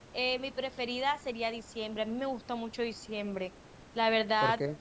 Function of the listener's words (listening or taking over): listening